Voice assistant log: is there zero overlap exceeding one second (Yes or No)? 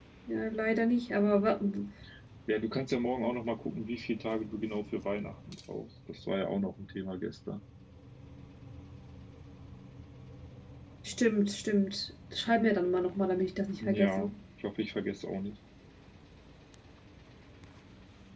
Yes